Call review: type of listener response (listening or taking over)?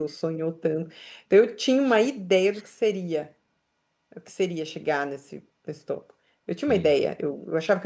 listening